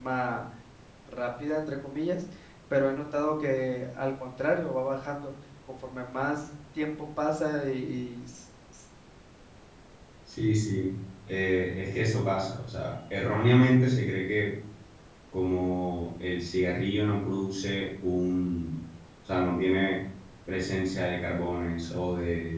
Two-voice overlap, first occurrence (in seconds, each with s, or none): none